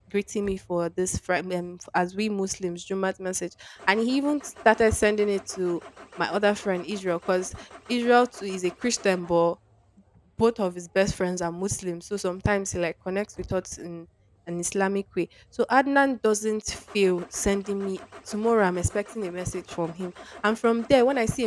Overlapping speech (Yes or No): No